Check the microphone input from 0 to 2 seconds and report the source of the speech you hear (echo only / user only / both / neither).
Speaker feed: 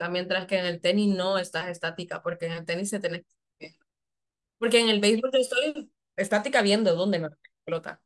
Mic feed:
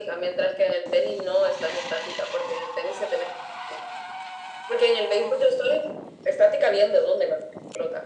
echo only